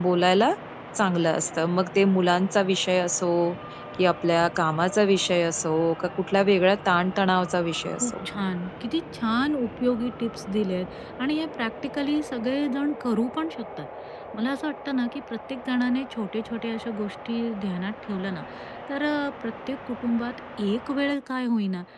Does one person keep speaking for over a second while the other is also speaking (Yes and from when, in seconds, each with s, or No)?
No